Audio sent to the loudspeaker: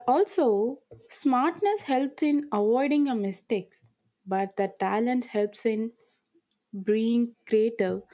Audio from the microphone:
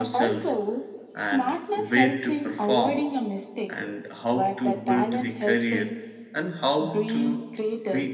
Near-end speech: present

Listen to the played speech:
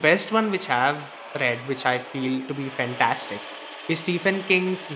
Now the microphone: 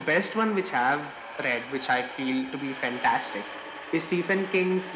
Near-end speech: none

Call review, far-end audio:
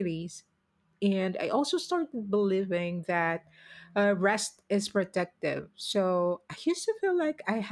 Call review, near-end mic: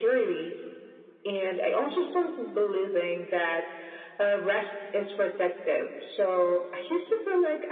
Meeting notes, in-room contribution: none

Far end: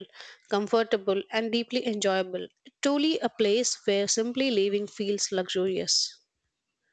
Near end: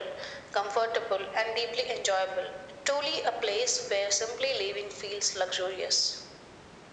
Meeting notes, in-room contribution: none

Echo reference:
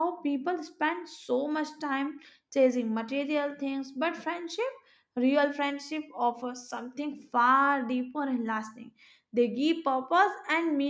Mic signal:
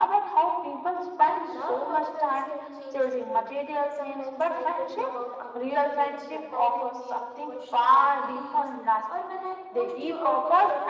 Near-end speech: present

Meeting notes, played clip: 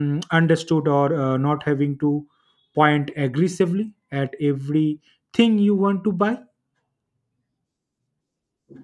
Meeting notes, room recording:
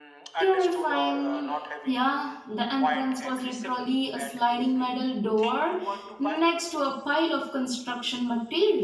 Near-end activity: present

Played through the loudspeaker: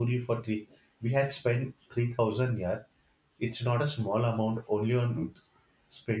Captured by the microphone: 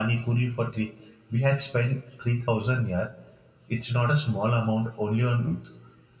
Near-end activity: none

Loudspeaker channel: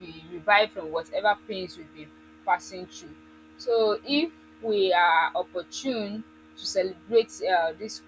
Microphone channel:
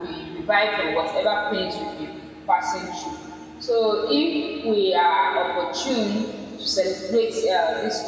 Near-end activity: none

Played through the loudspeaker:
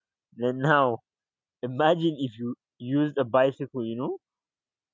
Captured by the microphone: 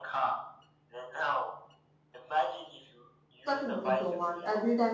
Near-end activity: present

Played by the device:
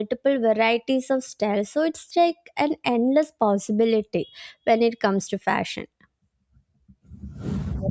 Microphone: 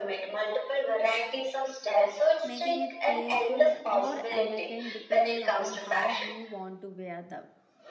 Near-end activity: present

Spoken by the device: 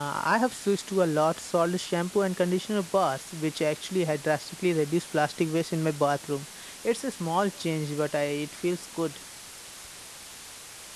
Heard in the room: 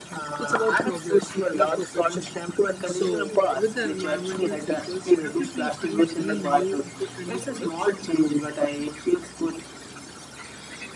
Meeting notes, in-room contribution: present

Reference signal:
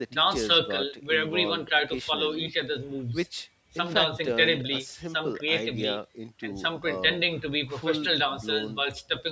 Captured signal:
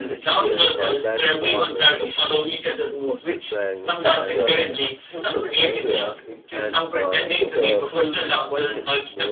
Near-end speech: present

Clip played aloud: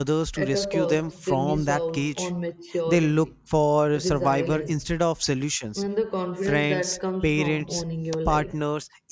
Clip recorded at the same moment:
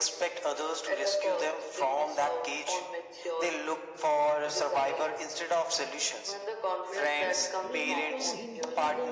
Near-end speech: present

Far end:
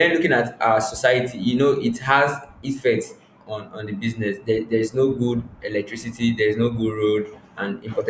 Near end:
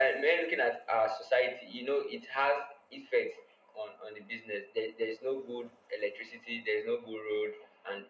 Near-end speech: none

